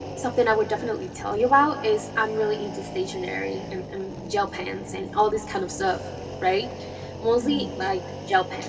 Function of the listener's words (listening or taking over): listening